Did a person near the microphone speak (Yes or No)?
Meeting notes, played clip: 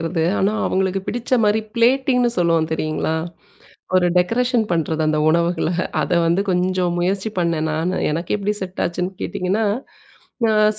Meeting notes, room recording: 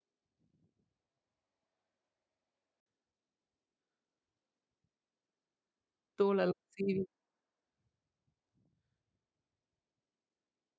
Yes